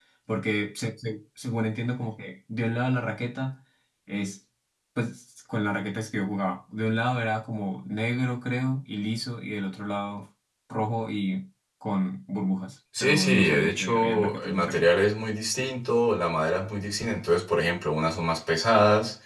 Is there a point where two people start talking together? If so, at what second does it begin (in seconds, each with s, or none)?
12.9 s